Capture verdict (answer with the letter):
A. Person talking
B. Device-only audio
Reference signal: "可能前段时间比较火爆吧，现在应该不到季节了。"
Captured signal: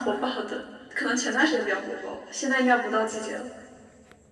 B